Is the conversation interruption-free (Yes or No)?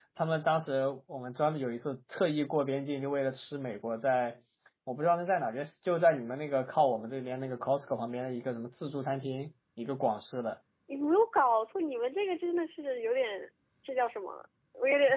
Yes